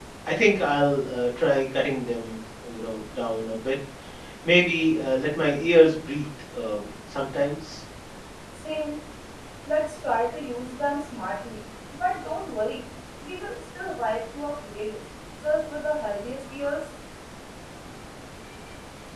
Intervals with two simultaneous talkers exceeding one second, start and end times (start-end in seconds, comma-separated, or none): none